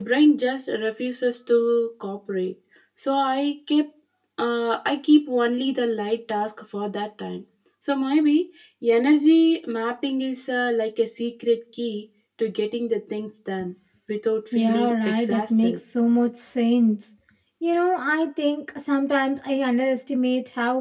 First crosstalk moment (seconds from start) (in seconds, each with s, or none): 14.5 s